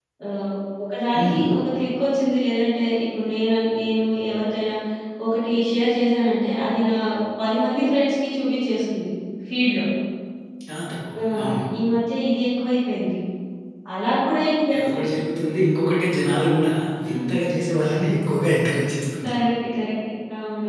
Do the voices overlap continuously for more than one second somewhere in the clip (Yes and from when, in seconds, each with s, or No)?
No